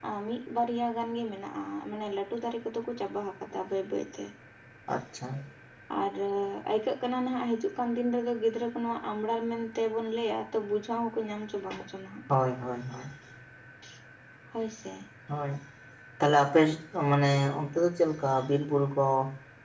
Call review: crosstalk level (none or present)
none